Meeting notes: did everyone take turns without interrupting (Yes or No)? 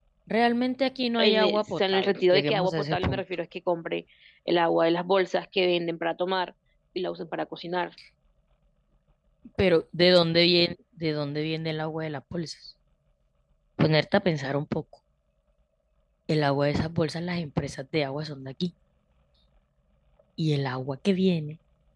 No